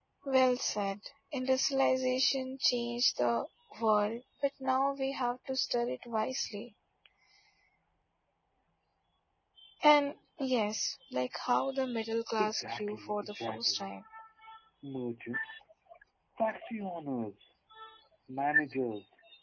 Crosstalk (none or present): present